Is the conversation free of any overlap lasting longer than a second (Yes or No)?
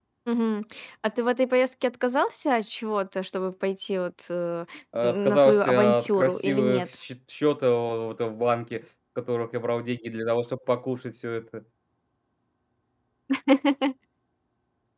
No